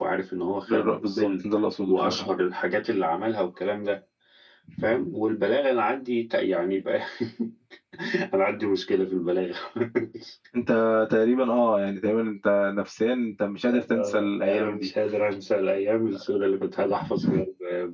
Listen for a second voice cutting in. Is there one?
Yes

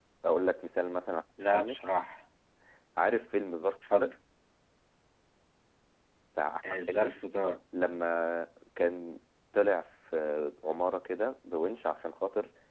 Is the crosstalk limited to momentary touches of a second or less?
Yes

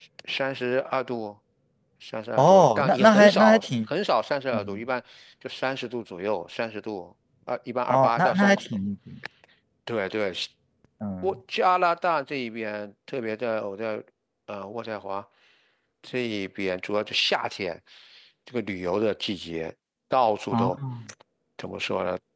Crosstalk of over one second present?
Yes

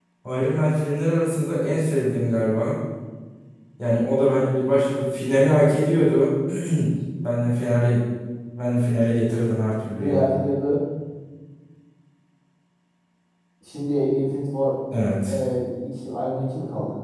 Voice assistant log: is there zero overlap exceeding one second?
Yes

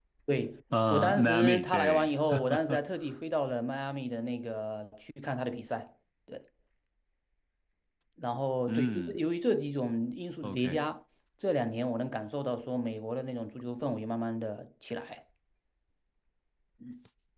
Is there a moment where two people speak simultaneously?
Yes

